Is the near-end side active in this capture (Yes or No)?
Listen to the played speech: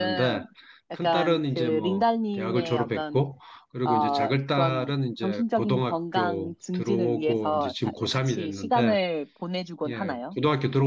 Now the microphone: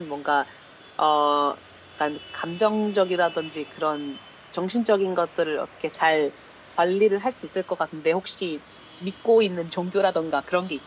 Yes